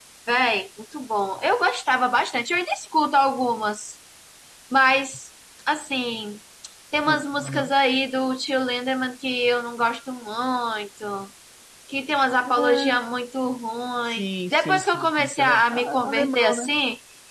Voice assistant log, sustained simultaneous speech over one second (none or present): present